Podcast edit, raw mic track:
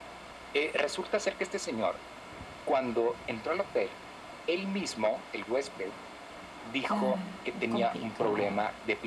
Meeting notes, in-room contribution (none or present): present